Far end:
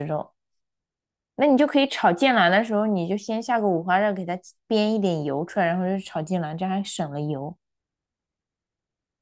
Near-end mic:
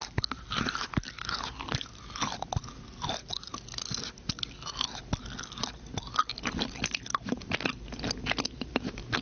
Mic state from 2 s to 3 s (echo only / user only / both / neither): neither